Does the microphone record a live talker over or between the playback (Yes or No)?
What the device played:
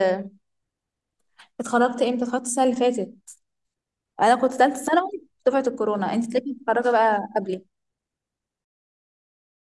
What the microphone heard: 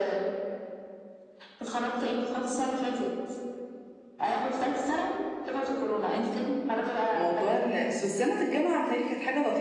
Yes